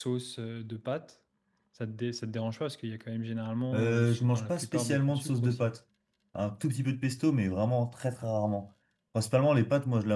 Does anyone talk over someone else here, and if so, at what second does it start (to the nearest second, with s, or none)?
4 s